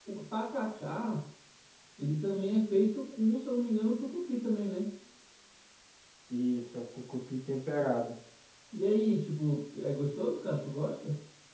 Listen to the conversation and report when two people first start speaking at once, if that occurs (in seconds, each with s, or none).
none